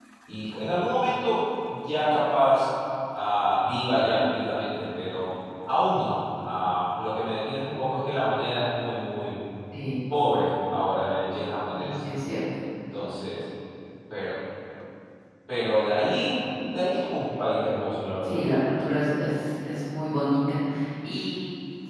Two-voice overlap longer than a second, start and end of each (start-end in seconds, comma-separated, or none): none